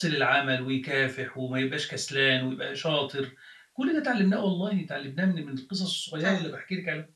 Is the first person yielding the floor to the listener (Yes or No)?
No